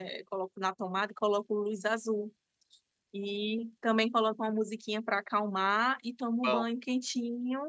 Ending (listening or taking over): listening